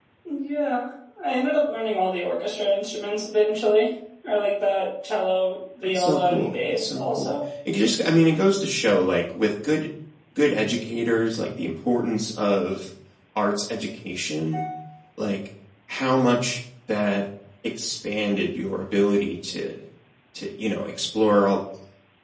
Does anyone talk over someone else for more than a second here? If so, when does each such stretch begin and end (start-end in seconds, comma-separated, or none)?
6.0-7.3